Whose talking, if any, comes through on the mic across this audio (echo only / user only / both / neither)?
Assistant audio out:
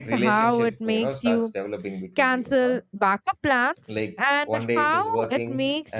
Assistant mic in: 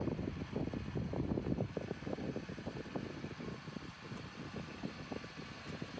neither